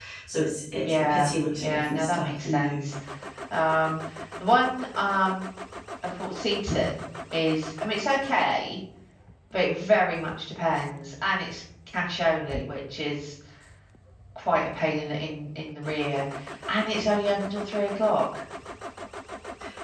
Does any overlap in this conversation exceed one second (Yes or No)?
Yes